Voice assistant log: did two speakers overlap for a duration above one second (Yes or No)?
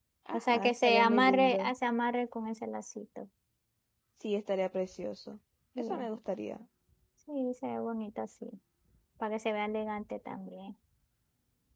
Yes